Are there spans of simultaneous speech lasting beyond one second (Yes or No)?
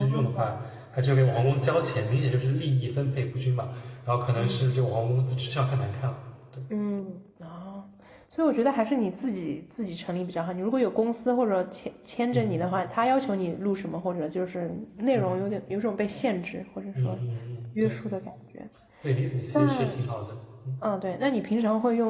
No